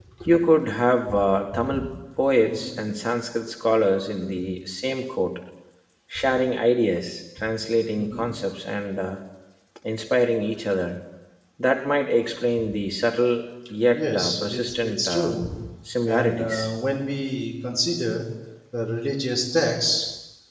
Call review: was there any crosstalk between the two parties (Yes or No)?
Yes